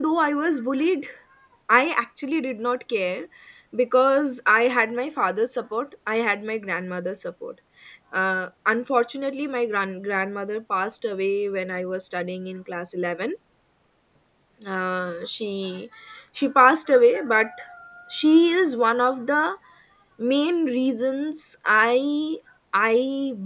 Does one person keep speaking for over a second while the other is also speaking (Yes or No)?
No